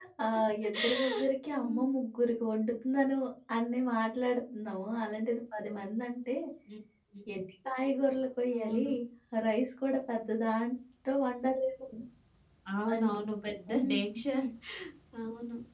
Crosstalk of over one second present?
No

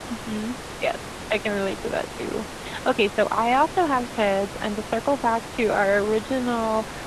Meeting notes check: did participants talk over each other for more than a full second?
No

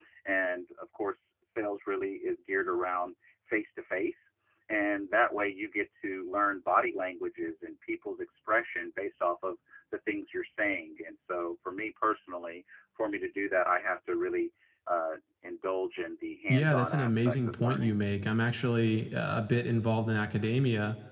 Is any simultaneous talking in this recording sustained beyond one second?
Yes, from 16.5 s

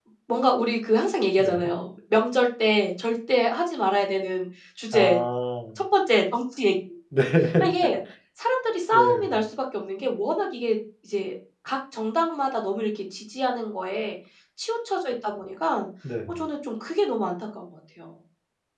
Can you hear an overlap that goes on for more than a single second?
No

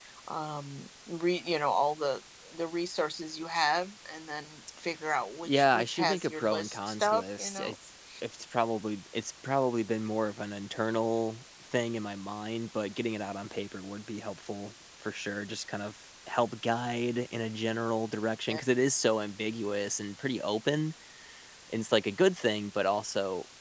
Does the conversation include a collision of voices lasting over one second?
Yes, from 5.5 s

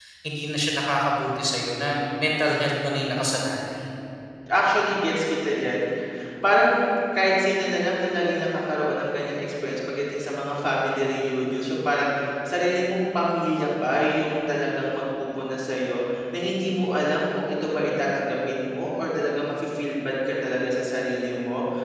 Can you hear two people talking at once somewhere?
No

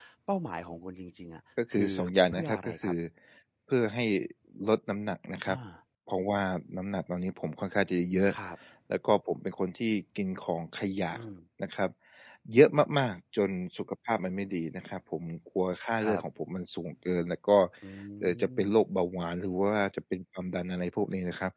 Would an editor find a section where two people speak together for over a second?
Yes, from 1.7 s

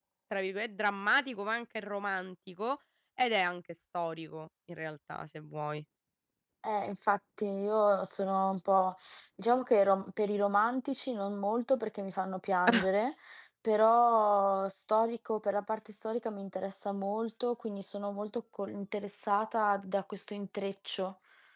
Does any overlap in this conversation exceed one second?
No

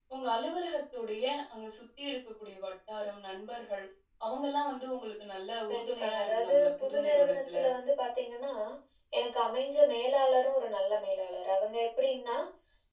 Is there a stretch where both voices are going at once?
Yes, from 5.7 s

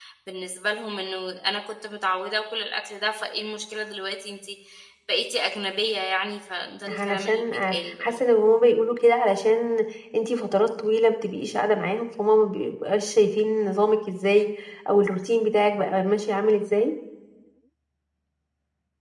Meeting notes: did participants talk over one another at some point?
Yes, from 6.9 s

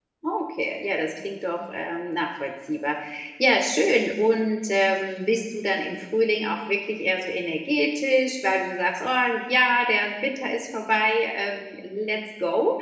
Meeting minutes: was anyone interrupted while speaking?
No

